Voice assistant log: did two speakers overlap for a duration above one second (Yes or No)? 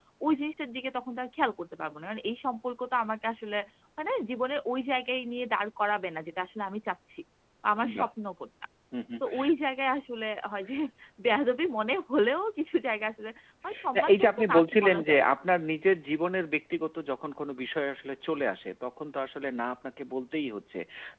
Yes